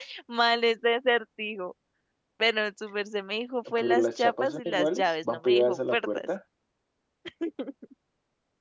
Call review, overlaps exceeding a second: present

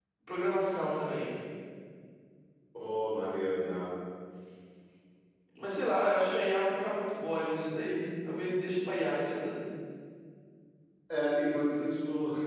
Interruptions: none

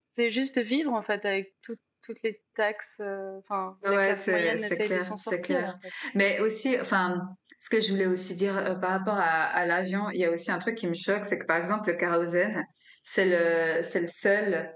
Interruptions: present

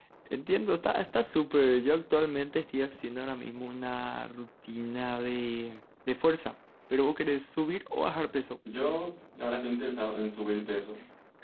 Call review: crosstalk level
none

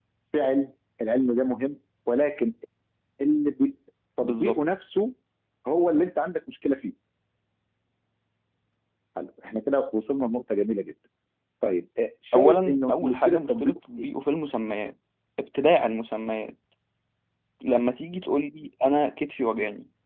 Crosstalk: present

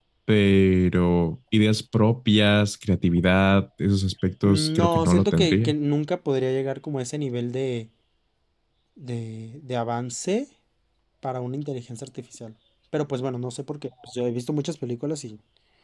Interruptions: present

